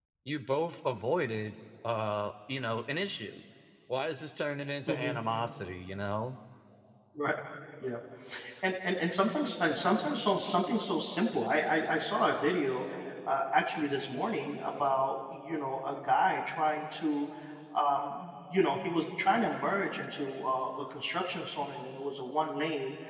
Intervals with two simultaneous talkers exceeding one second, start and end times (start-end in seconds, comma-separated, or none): none